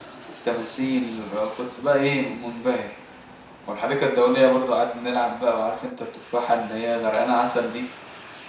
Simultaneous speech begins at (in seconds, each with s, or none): none